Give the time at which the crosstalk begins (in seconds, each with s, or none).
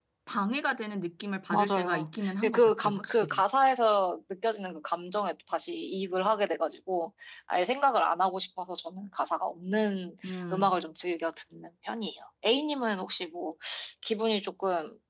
1.5 s